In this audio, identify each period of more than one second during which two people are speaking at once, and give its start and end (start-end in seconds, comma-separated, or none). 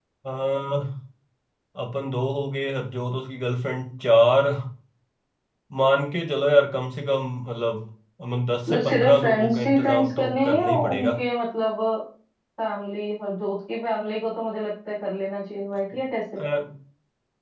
8.7-11.1